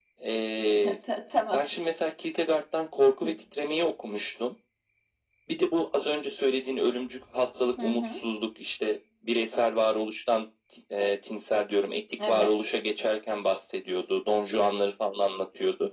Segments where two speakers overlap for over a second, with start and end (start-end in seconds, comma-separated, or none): none